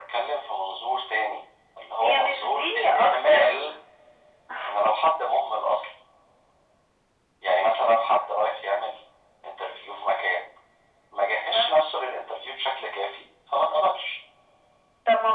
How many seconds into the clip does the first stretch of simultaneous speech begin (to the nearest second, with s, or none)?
2 s